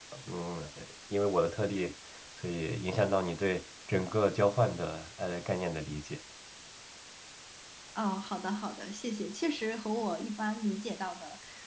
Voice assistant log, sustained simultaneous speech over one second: none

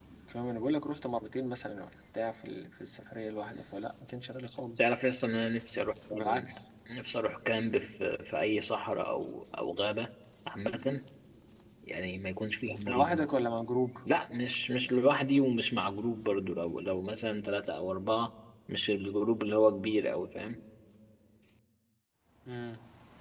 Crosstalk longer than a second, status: none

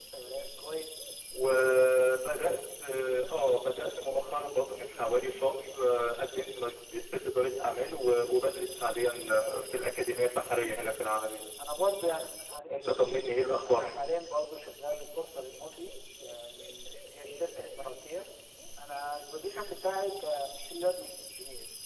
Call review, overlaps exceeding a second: none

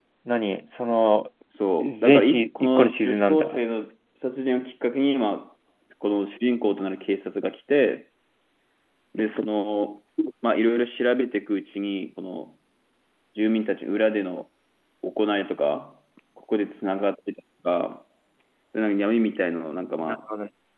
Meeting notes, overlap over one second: present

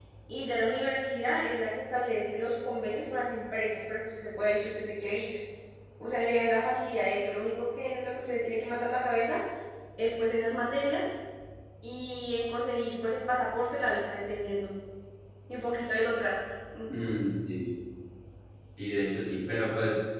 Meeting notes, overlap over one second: none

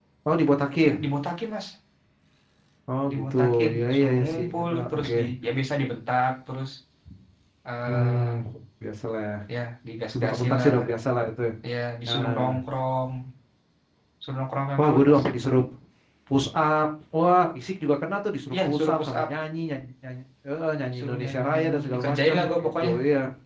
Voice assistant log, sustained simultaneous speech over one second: present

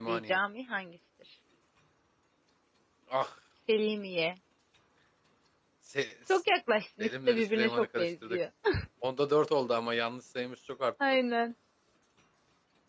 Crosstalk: present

